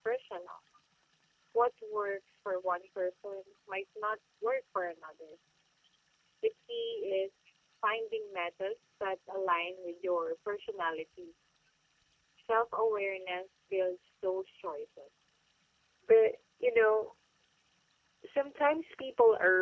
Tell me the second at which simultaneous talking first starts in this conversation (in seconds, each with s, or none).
none